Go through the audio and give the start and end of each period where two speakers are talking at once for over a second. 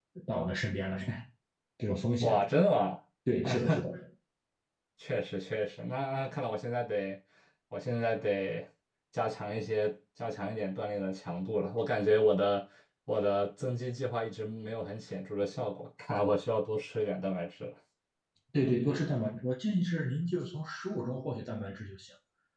none

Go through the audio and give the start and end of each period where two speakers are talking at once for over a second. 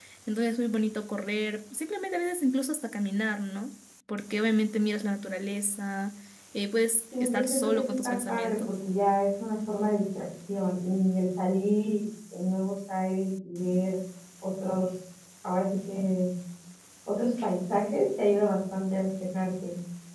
7.2-8.7

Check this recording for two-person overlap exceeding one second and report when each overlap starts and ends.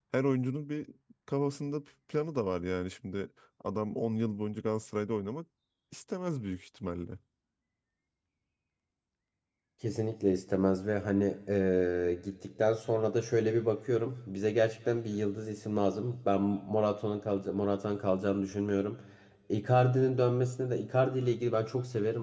none

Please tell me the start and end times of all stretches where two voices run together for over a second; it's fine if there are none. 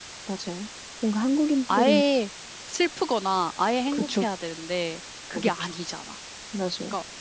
none

